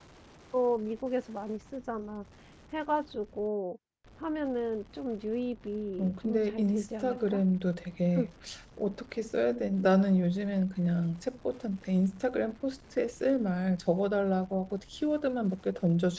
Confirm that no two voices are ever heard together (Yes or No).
No